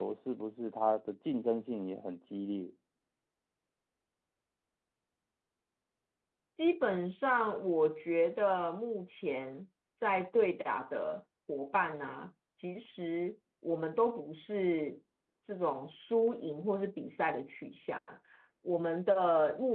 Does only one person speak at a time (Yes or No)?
Yes